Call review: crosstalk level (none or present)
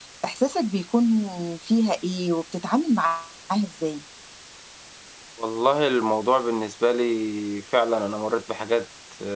none